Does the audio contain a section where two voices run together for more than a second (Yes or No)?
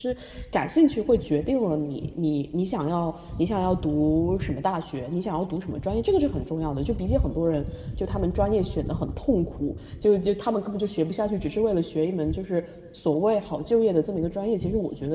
No